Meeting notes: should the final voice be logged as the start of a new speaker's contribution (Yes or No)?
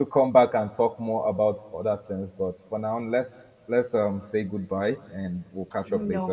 Yes